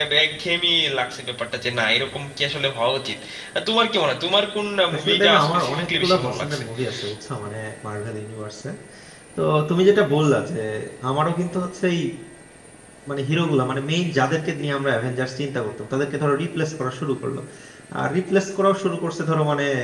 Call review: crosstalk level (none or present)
present